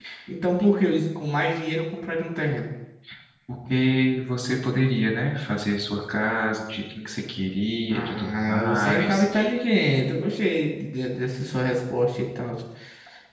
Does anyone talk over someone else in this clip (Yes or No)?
Yes